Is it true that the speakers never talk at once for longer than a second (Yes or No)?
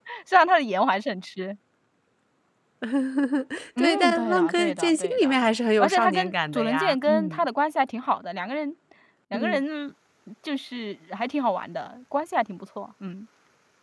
No